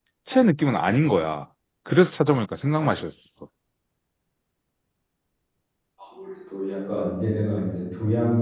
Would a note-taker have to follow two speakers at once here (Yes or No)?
No